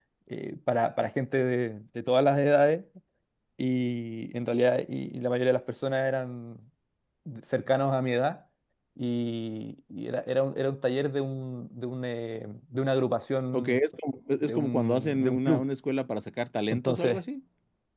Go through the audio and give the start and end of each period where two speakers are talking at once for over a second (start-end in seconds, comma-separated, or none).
14.4-15.7